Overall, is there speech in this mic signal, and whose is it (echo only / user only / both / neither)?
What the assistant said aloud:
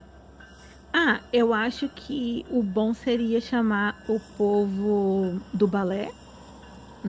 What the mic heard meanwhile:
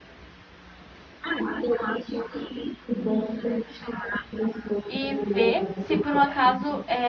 both